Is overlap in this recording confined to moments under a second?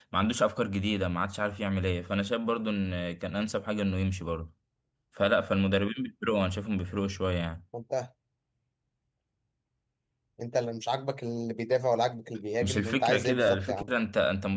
No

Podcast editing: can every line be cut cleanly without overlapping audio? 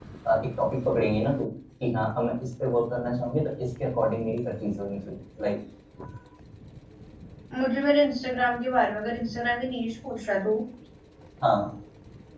Yes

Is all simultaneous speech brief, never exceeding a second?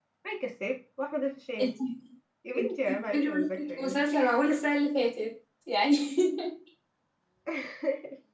No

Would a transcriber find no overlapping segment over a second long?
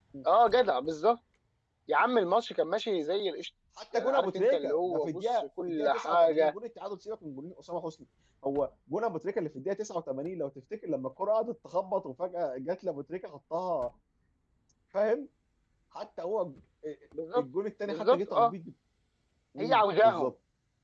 No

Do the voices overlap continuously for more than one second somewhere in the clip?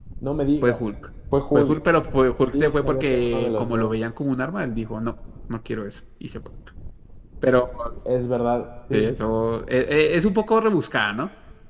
Yes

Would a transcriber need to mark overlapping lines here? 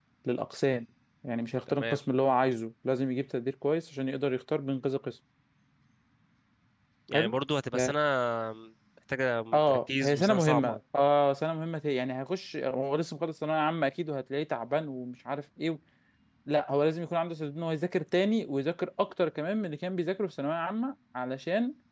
Yes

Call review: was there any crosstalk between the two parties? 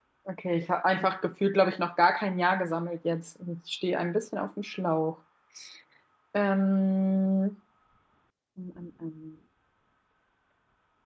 No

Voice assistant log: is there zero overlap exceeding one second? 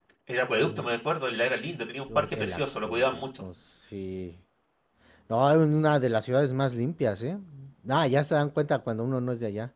No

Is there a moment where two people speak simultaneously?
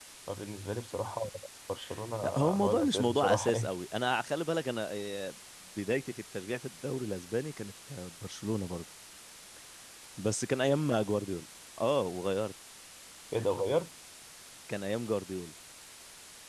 Yes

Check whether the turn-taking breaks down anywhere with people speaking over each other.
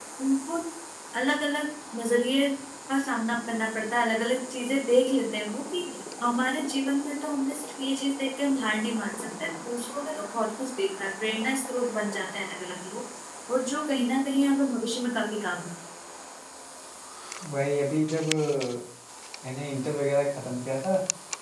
No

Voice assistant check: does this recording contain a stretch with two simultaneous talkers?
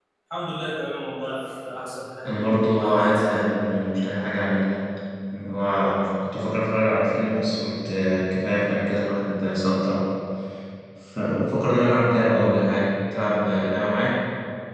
Yes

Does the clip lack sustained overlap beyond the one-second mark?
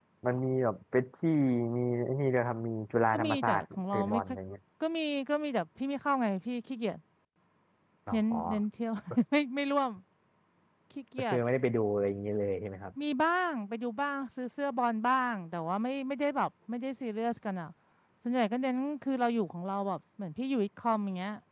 No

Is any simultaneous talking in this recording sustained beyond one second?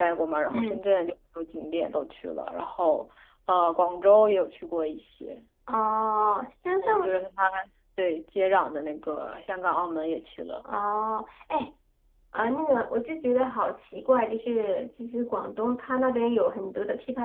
No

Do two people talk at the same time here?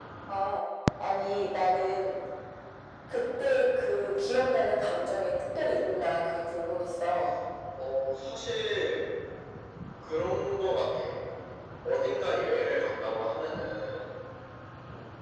No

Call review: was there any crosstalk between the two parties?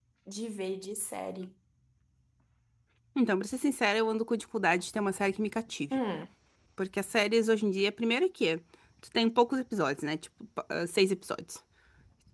No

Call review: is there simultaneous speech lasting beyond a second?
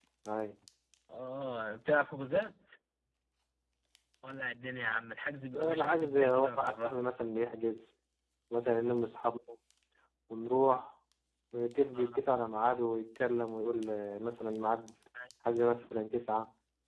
Yes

